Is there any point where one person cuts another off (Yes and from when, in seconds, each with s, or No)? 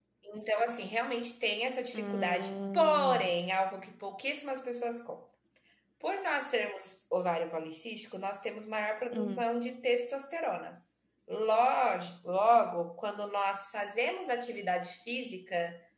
Yes, from 1.9 s